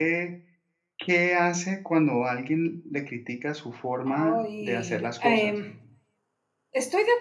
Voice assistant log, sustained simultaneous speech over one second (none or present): present